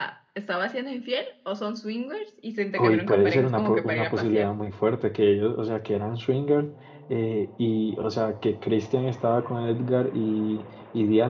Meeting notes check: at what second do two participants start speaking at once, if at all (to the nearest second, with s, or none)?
3 s